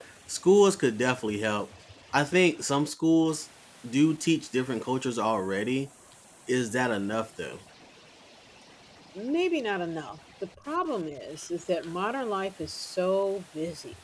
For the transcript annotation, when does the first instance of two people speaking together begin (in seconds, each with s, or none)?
none